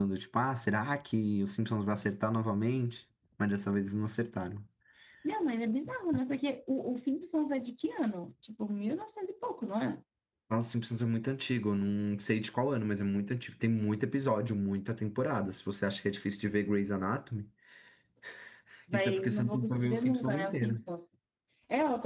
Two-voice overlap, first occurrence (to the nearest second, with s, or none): 19 s